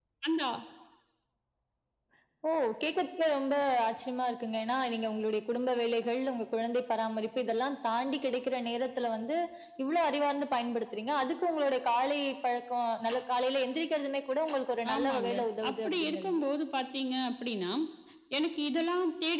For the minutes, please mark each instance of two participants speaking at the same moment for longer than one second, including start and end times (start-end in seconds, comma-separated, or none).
14.9-16.4